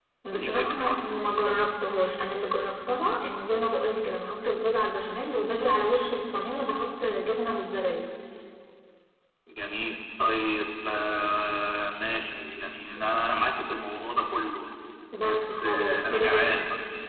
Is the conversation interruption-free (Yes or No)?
No